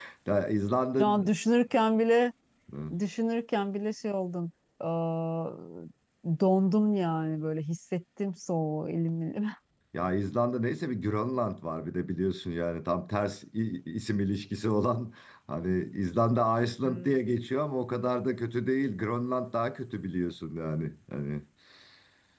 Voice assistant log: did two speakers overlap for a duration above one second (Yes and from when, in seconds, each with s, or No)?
No